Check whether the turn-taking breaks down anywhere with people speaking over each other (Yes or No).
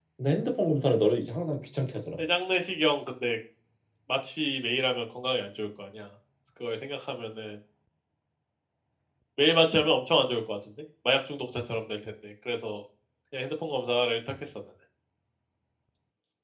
No